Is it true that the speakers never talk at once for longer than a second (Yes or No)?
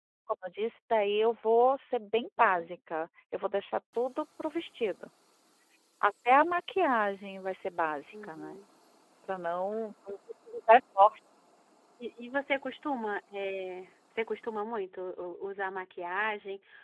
Yes